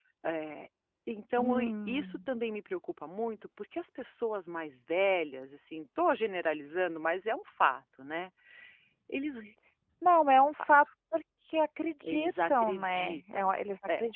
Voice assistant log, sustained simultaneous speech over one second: present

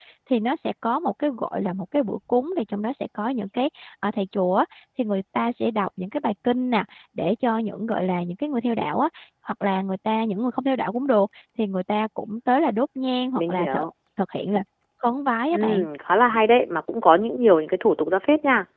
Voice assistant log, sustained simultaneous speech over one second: none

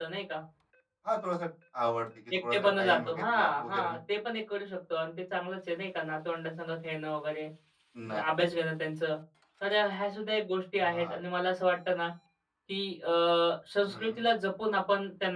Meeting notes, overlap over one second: present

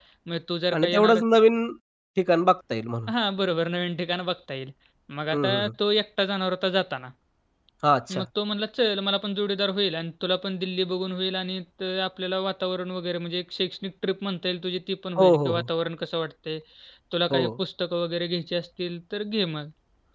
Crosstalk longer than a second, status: none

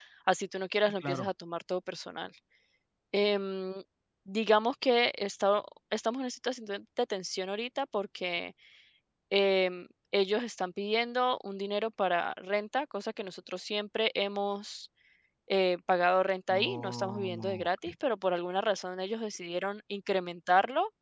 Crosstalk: present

